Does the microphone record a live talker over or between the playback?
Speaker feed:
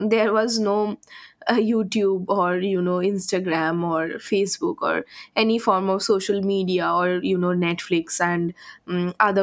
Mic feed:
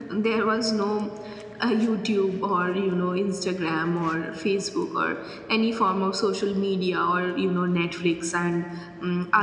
No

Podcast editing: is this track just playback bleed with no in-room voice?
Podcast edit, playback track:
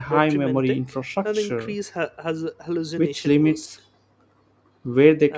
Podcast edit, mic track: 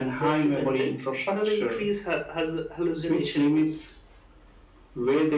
Yes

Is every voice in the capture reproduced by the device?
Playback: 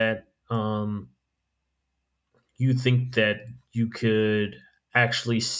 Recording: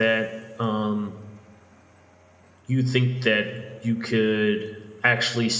Yes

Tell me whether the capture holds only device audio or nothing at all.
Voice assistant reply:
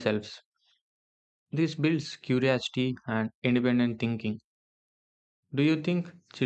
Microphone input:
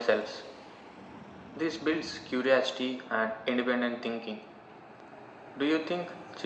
Yes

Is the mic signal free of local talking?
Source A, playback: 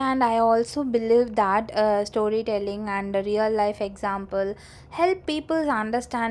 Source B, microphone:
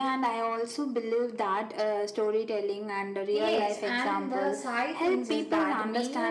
No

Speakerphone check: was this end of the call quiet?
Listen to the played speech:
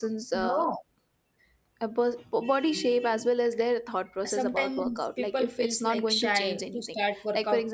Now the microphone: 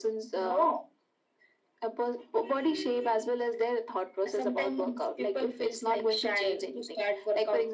Yes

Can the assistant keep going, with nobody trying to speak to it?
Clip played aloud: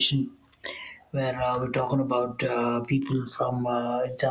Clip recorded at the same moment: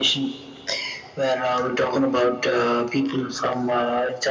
Yes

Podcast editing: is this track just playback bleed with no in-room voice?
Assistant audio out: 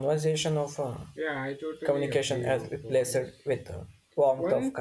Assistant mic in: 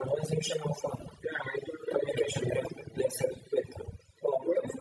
Yes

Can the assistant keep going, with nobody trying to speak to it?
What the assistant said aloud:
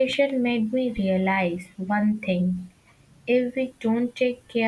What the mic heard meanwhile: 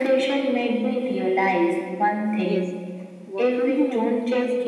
No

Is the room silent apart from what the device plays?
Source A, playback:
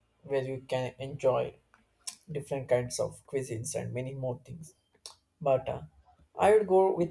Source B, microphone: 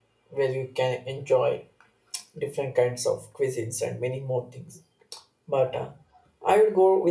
Yes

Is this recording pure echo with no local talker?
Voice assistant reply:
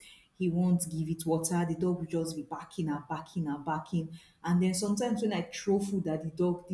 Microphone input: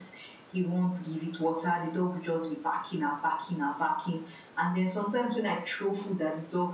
Yes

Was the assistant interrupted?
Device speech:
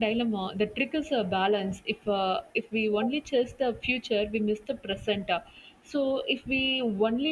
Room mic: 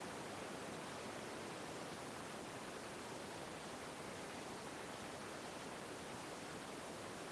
No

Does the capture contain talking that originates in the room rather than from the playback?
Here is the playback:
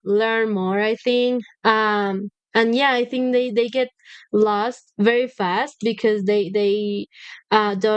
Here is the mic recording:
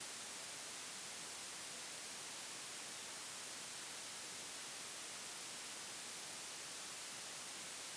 No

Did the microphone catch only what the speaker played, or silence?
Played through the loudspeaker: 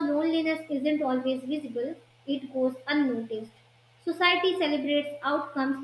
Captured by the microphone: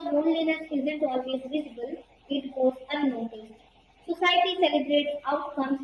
Yes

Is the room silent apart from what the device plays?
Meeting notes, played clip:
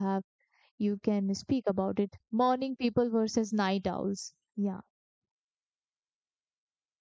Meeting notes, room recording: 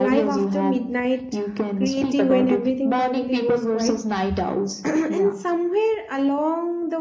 No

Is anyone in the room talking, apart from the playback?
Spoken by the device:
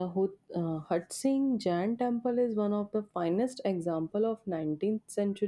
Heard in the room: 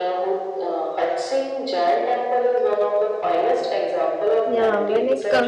Yes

